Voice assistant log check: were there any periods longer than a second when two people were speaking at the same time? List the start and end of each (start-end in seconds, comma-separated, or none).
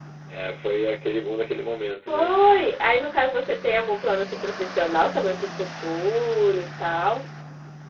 none